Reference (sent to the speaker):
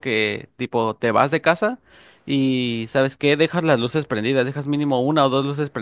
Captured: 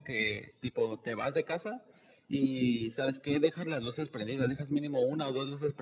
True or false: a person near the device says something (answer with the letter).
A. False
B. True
A